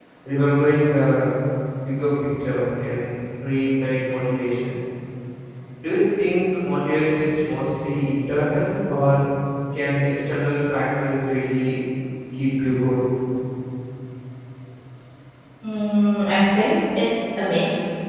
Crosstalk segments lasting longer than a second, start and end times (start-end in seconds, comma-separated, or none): none